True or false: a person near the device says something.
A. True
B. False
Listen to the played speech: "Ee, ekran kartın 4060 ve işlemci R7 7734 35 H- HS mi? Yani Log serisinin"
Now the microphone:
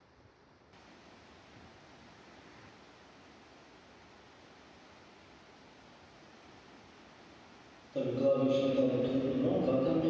A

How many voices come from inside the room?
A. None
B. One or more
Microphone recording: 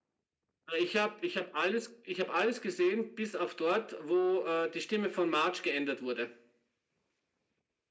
A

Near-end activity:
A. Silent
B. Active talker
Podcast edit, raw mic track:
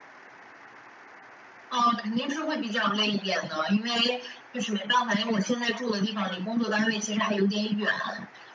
A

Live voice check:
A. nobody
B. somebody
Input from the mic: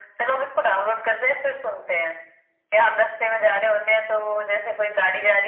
A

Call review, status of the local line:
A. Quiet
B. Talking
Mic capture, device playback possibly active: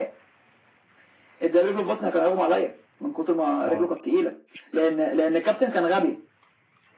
B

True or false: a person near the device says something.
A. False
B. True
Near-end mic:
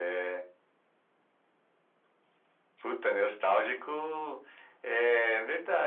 A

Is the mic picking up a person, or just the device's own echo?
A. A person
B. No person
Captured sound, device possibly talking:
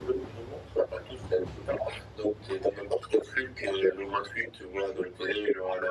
B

